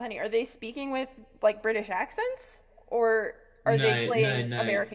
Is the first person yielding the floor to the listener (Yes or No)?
Yes